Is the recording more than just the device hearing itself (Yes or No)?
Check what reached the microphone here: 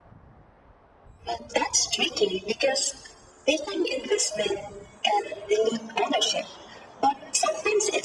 No